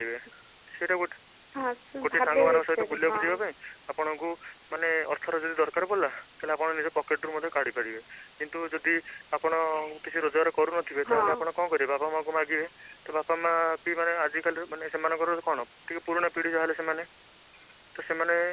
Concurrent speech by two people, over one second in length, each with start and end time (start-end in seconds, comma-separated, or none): 2.0-3.2